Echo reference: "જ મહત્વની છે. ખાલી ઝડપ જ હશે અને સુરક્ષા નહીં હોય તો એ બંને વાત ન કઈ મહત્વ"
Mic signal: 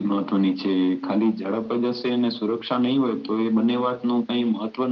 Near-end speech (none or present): none